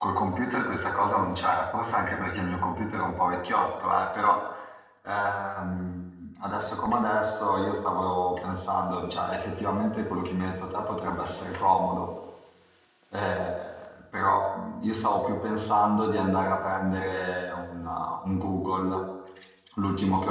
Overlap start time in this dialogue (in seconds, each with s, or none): none